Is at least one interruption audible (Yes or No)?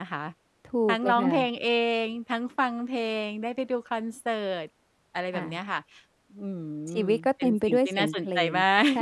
Yes